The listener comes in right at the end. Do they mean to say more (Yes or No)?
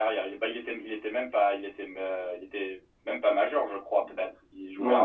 Yes